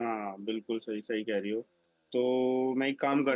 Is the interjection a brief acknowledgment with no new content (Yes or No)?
Yes